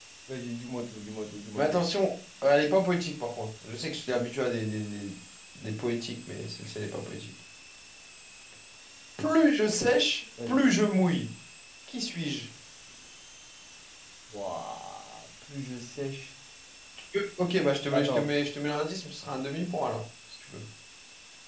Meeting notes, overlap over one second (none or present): none